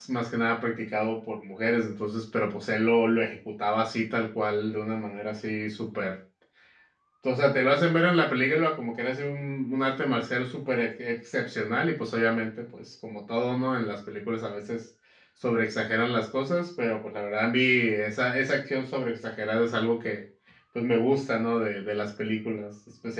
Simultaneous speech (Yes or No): No